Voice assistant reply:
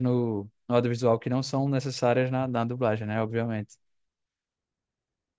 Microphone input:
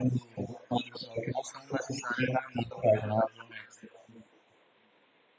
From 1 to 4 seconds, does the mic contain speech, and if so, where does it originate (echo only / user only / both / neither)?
echo only